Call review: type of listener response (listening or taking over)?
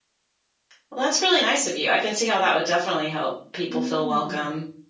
taking over